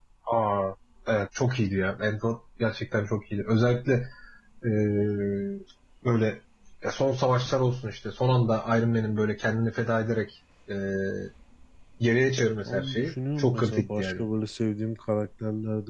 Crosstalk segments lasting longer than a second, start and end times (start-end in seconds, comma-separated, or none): 12.7-14.2